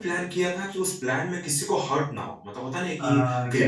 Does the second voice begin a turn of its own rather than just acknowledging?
No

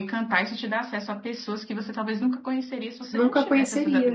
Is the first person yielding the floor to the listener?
Yes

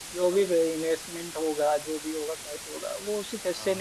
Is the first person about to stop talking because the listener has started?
No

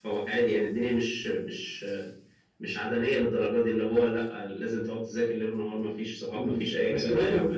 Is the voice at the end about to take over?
Yes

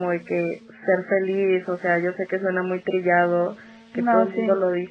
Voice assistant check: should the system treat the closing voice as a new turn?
No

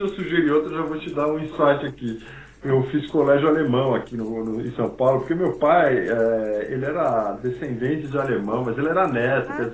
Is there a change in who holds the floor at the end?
No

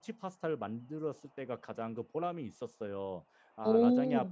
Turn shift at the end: No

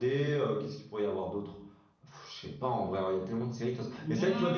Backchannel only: Yes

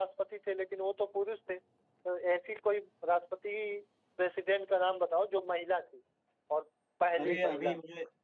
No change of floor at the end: No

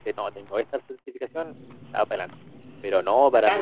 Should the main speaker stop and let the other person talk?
Yes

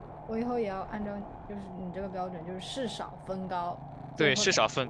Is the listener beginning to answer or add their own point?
Yes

